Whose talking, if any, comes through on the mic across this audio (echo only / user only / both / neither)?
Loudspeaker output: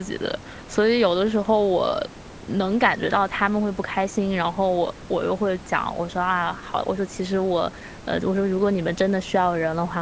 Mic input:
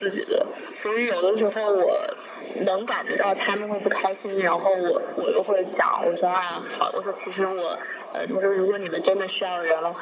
echo only